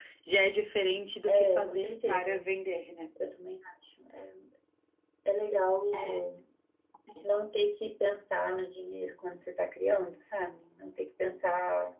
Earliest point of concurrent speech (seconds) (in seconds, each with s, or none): 1.3 s